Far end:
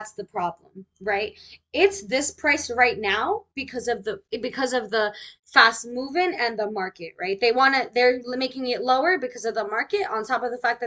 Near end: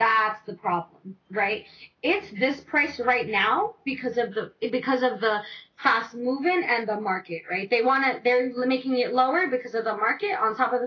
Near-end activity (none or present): none